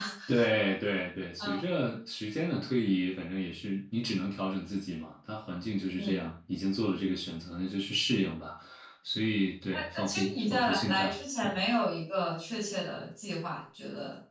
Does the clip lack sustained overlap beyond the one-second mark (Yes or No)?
No